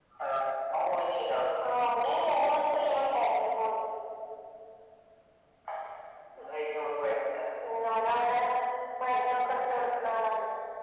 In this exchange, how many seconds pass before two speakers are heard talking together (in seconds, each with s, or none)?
none